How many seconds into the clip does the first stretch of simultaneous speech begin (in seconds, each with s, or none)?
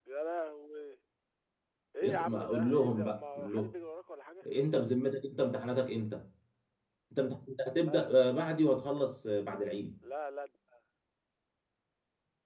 2.0 s